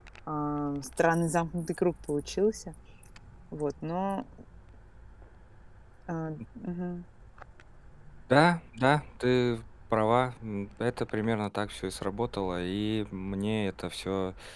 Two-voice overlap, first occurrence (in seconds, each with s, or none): none